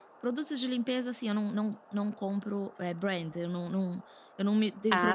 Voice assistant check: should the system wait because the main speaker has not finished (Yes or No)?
Yes